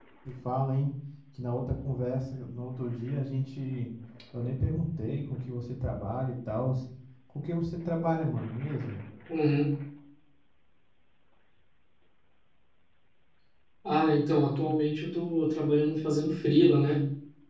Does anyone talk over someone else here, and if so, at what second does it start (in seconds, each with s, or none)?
none